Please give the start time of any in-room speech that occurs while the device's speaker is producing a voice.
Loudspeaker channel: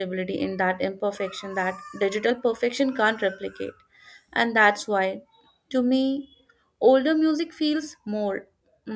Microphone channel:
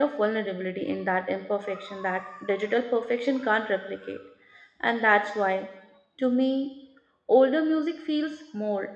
none

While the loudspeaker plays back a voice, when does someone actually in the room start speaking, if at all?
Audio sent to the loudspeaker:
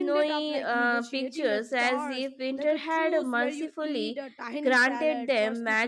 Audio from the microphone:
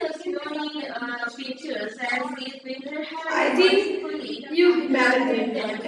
3 s

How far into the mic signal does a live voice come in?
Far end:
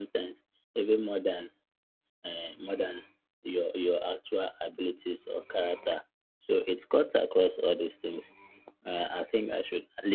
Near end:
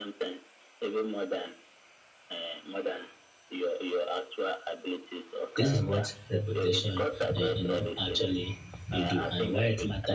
6 s

